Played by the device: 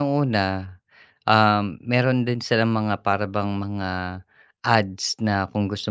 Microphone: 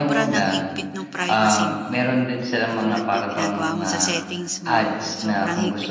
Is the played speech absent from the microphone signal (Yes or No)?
No